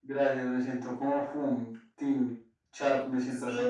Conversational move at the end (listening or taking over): taking over